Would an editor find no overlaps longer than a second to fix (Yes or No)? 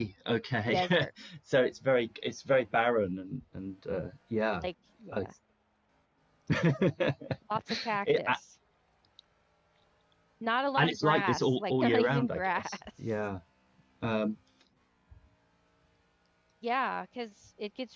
No